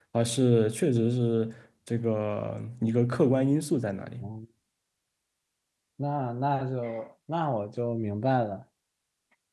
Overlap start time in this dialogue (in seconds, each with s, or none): none